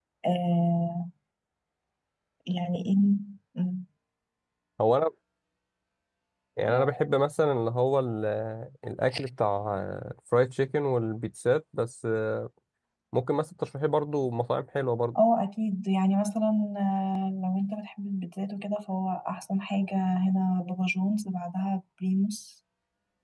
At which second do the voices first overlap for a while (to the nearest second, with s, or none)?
none